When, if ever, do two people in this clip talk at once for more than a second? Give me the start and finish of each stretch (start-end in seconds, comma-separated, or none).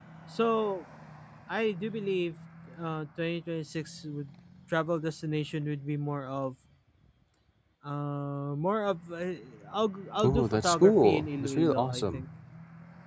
10.2-12.2